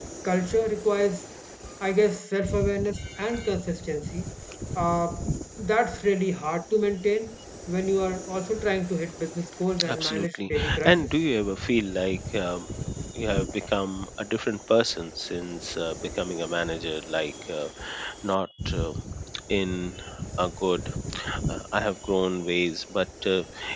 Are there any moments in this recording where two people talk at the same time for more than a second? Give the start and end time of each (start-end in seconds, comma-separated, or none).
9.8-11.1